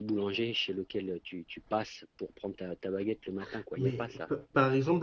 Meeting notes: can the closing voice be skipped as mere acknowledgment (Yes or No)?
No